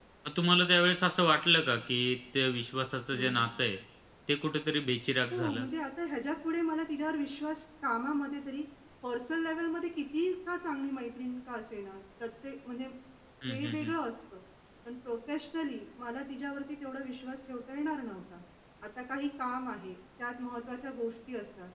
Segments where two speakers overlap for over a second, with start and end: none

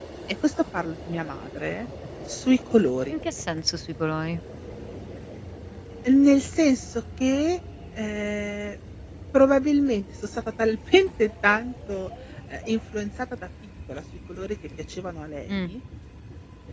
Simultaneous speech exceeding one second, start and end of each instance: none

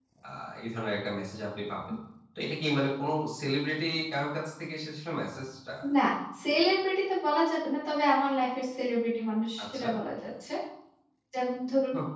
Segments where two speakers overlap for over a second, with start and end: none

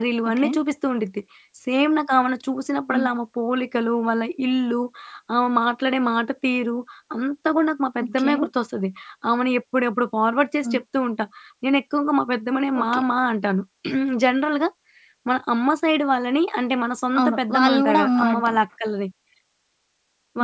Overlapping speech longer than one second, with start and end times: 17.2-18.6

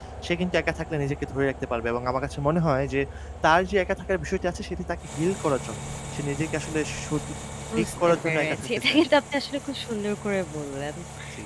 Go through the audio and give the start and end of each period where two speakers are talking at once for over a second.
7.7-9.0

